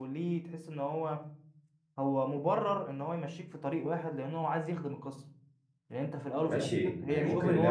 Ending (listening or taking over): taking over